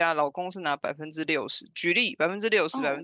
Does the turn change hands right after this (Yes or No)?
No